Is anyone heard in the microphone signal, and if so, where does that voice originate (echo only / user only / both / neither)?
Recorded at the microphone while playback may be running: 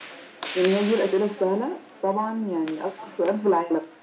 echo only